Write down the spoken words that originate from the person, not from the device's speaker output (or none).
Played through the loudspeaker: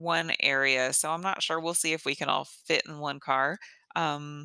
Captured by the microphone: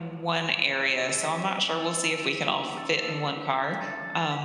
none